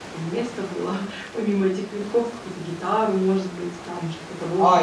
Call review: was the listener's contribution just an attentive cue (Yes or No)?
No